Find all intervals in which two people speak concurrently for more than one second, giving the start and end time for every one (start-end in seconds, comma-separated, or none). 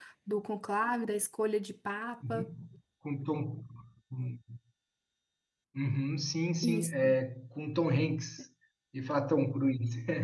none